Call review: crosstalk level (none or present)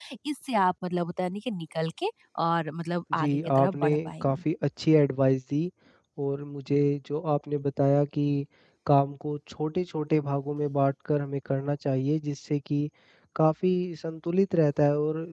present